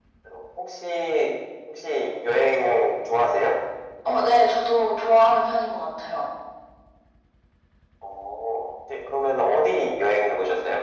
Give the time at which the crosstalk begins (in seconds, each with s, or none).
none